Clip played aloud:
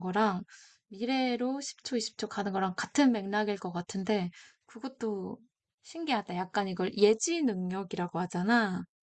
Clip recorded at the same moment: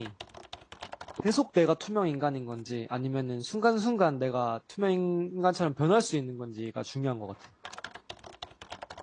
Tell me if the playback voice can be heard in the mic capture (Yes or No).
No